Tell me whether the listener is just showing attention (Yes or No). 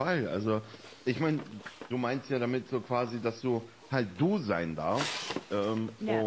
Yes